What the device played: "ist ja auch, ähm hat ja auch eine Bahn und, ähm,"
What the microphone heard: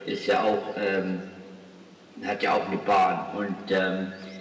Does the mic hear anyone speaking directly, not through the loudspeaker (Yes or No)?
No